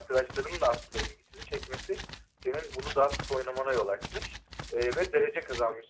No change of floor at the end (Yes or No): Yes